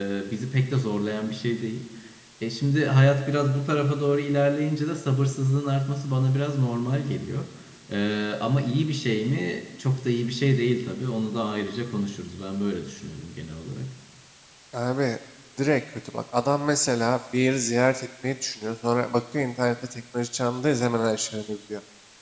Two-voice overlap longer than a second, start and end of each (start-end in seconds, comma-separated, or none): none